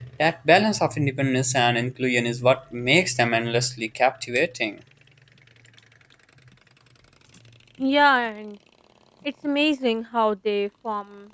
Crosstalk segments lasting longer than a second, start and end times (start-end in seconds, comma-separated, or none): none